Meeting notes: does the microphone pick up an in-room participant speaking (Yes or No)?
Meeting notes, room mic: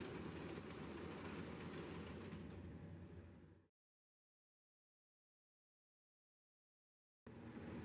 No